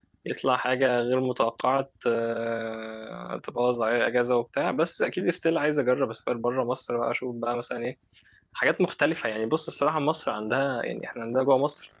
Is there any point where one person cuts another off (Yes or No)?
No